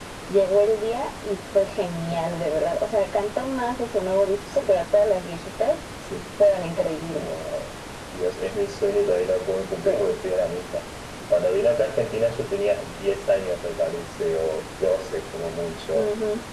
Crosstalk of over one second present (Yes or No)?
No